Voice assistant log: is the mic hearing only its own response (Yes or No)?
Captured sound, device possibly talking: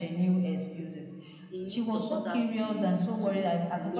No